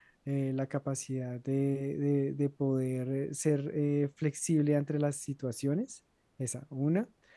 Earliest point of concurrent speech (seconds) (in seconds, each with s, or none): none